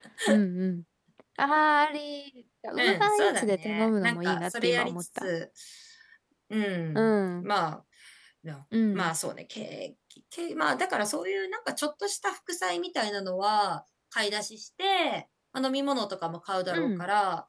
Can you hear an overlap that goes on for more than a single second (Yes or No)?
Yes